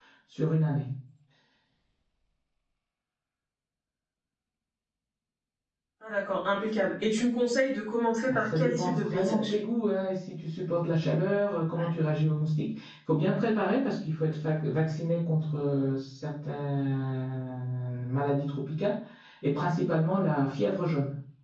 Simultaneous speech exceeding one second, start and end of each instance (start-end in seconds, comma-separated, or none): 8.3-9.5